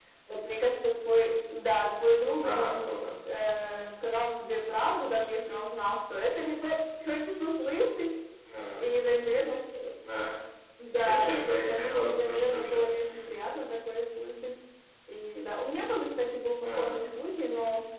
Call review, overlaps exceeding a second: present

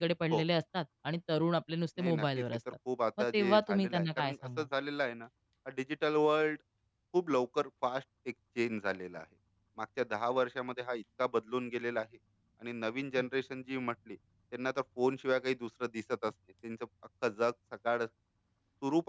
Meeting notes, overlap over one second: present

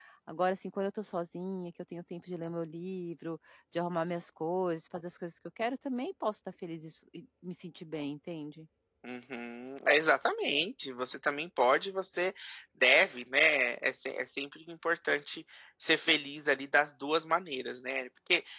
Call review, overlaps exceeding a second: none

